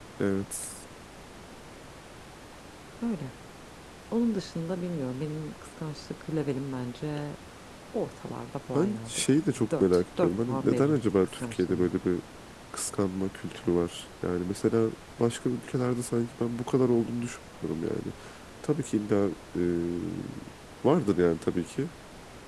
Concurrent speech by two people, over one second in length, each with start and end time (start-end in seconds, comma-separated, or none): 9.7-11.9